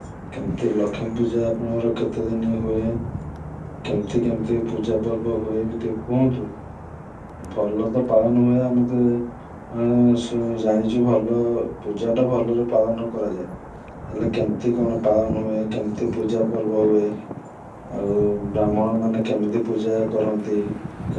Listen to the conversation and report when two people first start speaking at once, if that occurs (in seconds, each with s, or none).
none